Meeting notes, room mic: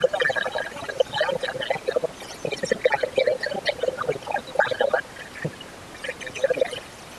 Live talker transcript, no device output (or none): none